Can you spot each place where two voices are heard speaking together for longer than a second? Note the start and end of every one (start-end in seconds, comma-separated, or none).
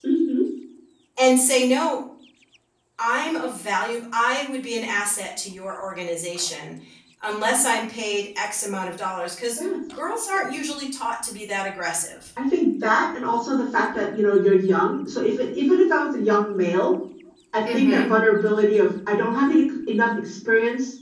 none